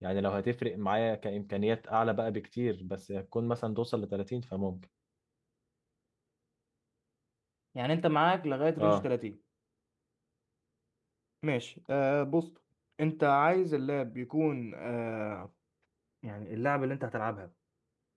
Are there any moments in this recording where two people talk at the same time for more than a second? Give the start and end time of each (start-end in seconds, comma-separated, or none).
none